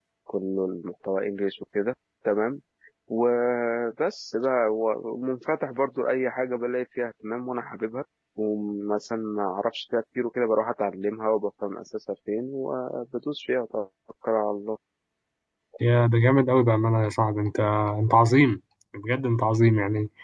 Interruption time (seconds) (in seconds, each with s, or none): none